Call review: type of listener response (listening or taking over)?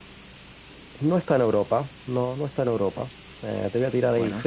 listening